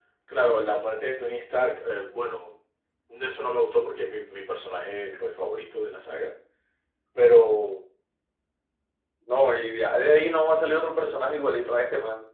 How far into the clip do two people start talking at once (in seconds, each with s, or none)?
none